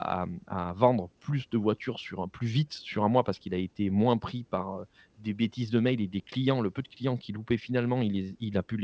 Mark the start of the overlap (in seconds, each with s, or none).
none